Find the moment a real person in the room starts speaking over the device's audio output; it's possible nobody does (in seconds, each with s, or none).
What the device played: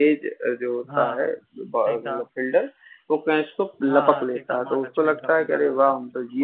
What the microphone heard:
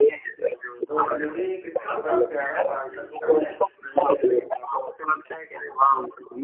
0.9 s